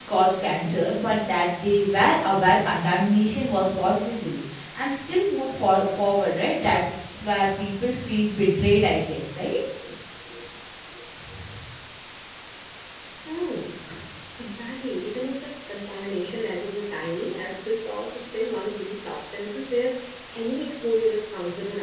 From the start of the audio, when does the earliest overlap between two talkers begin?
none

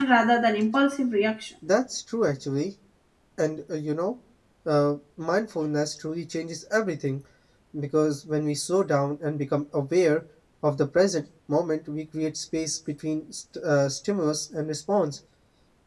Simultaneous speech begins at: none

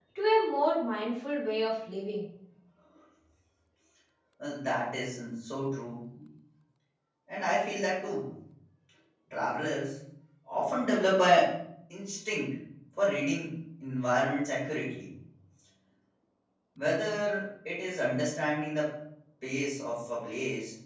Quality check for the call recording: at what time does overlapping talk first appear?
none

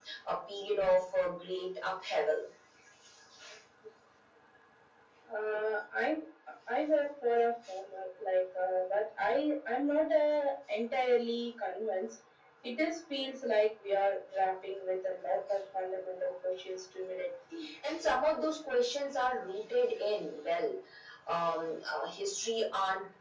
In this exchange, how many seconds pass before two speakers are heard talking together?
none

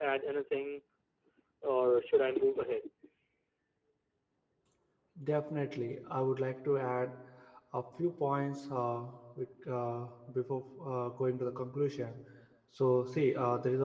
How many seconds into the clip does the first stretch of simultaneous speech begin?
none

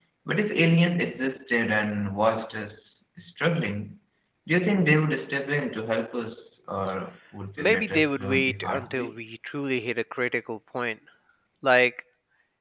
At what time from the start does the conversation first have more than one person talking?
7.6 s

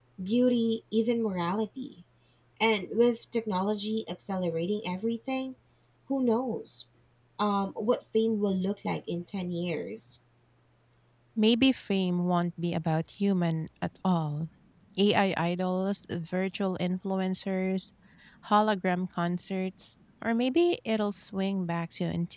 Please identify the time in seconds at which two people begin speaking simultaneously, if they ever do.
none

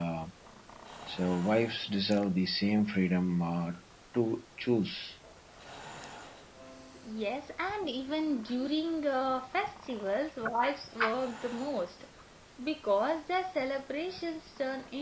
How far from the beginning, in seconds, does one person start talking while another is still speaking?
none

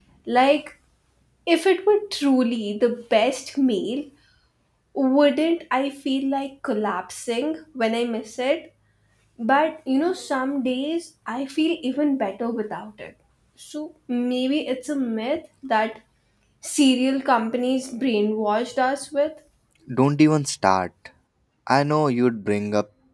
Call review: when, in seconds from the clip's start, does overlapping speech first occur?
none

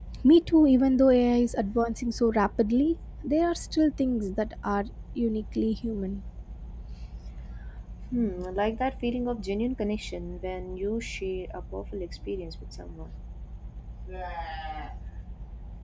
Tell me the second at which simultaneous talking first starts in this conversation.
none

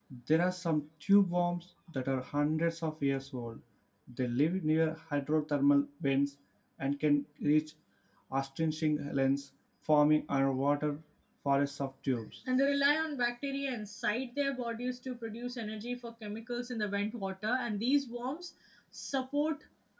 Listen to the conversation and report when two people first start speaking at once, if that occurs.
none

